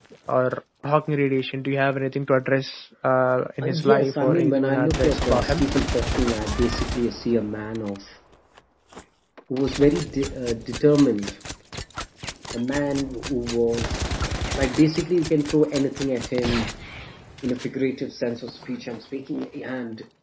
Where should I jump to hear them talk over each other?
4 s

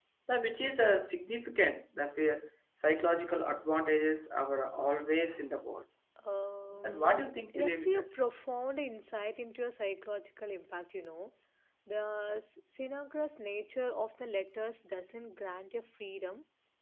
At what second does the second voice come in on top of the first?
7 s

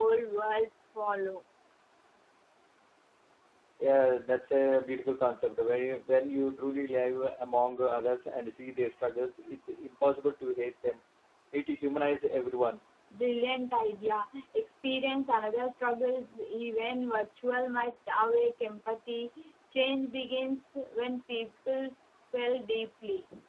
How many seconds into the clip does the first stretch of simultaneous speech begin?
none

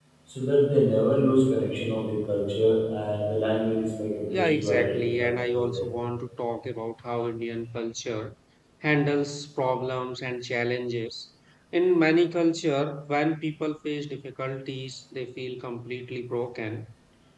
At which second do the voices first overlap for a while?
4 s

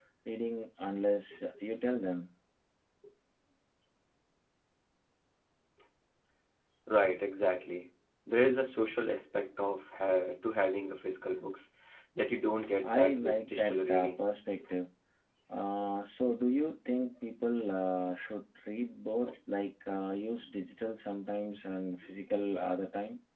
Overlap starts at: 13 s

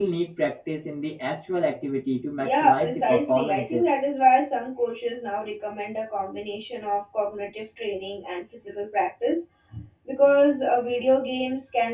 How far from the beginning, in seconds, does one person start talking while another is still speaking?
2 s

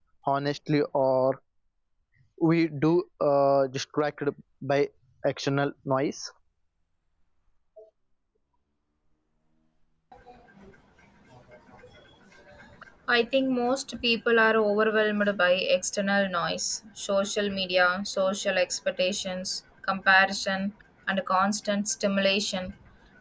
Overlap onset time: none

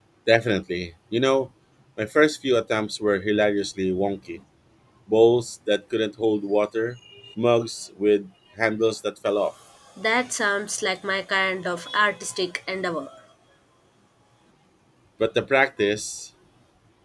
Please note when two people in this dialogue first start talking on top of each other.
none

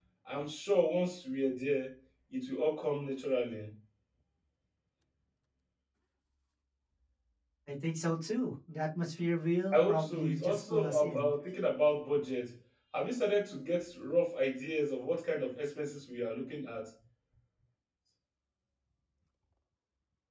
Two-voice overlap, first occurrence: 10 s

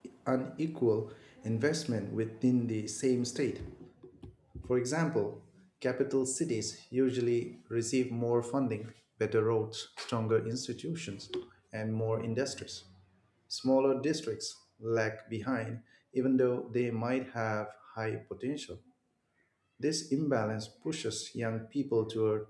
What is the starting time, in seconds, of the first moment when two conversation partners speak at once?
none

